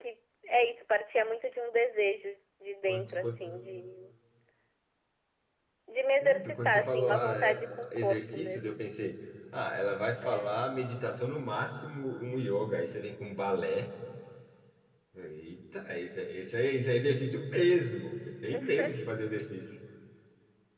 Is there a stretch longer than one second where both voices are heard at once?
Yes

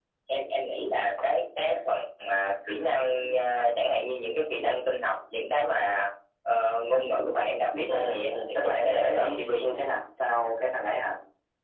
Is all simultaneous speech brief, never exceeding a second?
No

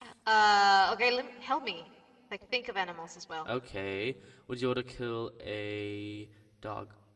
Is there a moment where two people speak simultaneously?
No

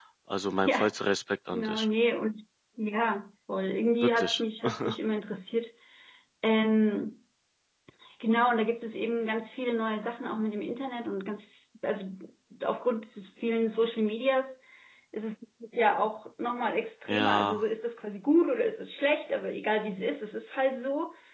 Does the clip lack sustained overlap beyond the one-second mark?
Yes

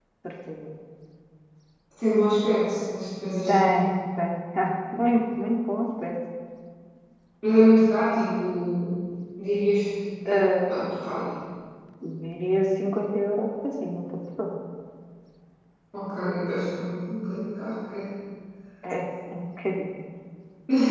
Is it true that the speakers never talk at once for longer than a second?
Yes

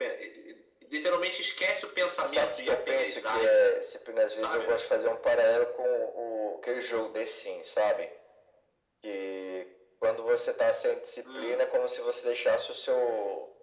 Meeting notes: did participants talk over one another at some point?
Yes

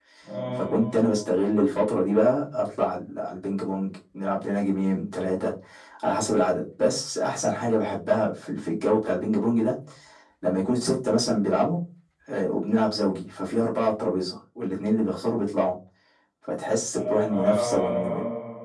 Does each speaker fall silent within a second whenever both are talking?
No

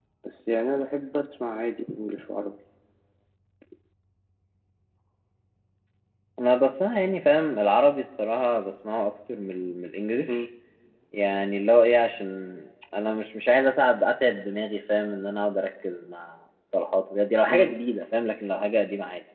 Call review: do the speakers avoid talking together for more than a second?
Yes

